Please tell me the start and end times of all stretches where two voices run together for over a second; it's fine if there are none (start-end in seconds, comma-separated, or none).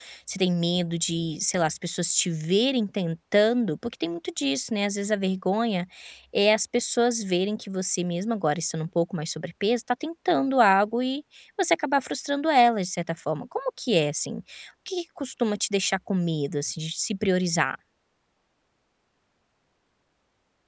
none